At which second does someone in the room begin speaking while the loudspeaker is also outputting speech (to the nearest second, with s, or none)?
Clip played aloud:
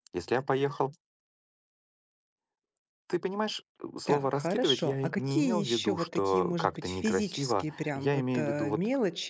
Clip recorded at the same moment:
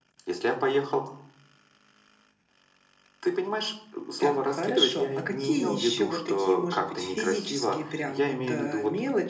none